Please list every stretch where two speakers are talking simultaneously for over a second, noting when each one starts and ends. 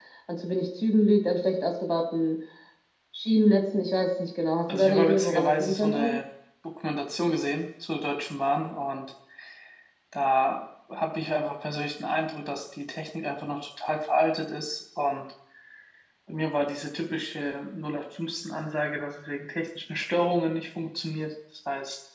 4.7-6.1

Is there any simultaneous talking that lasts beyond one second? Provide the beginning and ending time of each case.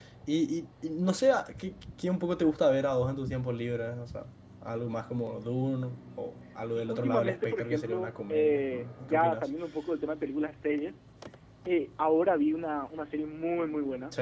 6.7-9.4

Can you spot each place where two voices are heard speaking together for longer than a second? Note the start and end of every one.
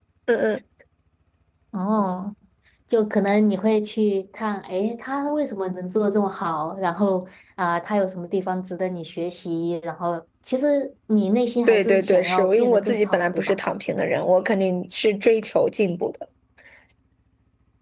11.7-13.5

